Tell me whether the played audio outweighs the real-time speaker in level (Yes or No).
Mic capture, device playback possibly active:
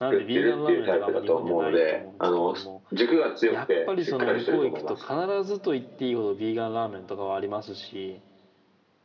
Yes